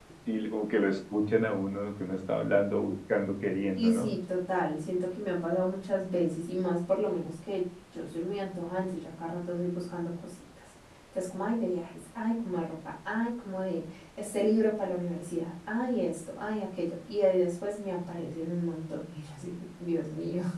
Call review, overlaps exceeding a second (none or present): none